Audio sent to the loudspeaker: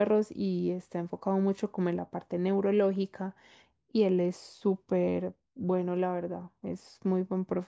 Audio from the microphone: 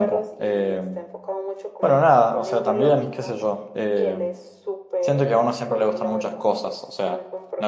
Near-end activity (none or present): present